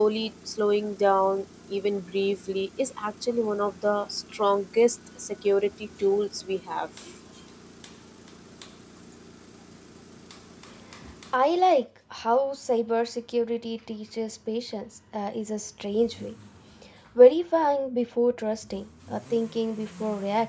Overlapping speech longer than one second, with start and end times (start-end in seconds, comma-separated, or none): none